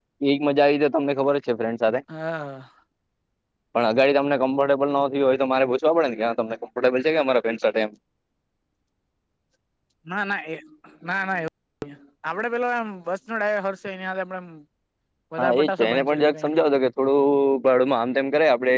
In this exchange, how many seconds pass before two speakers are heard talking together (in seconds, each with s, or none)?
15.4 s